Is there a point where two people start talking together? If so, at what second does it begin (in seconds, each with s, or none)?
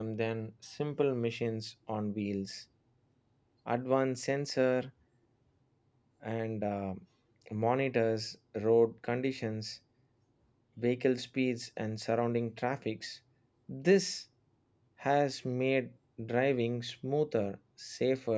none